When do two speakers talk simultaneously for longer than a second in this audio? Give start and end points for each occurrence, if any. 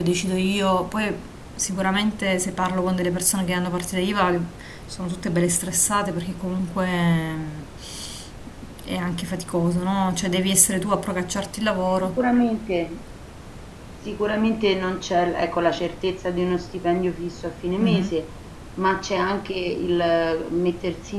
none

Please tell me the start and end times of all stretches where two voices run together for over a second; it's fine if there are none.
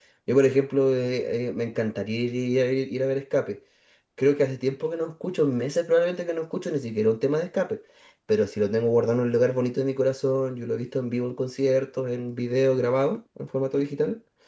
none

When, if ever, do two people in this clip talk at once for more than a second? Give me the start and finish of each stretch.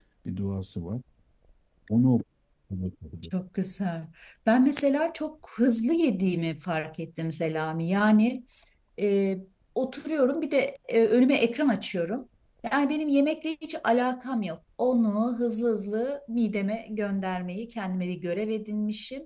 none

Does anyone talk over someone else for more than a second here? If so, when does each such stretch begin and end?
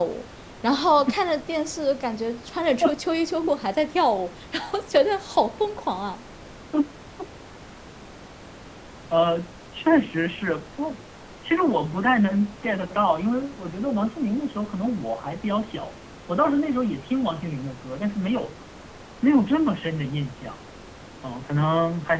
none

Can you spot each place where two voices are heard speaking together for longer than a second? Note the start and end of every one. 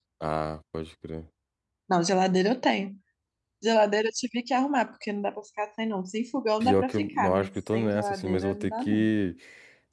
6.6-9.1

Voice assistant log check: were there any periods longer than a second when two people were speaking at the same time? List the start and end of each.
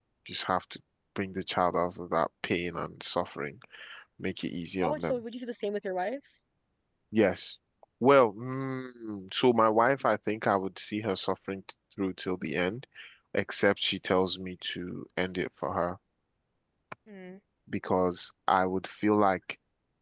none

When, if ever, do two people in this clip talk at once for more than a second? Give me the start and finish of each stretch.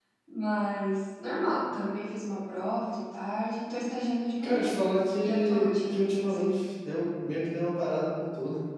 5.2-6.6

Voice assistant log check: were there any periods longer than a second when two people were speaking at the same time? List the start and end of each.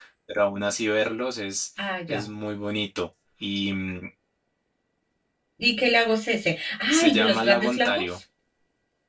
6.9-8.1

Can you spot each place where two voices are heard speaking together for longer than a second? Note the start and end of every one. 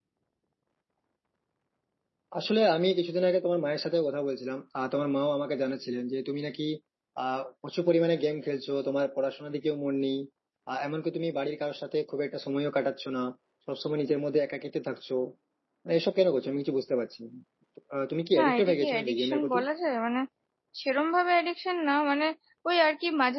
18.4-19.6

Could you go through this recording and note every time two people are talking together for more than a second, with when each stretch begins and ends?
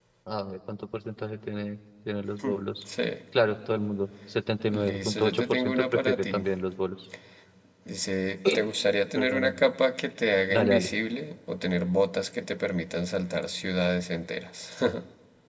4.7-6.4

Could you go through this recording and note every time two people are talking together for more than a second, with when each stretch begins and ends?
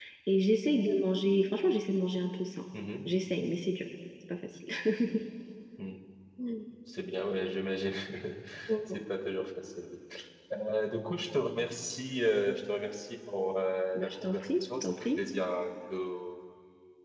13.9-15.2

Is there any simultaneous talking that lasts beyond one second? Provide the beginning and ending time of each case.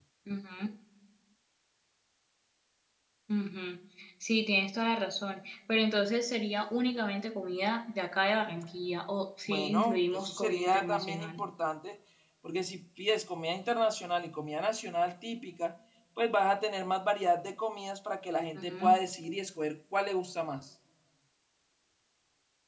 9.5-11.4

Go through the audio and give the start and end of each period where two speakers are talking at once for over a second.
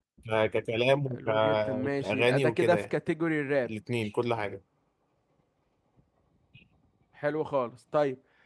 1.1-2.8

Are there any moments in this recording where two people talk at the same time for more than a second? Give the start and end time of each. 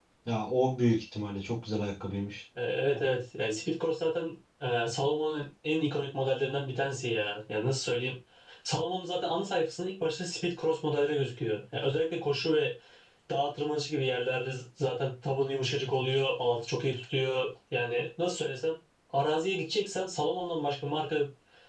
none

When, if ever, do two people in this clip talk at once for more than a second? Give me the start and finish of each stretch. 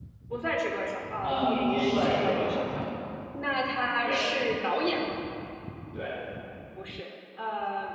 1.2-2.8

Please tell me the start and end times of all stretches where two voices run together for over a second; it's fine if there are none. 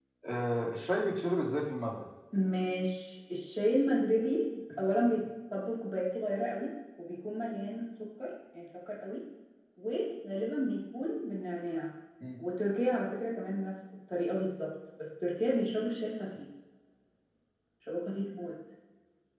none

